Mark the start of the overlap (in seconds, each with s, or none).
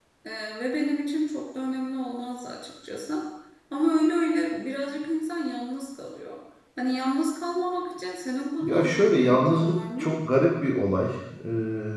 8.6 s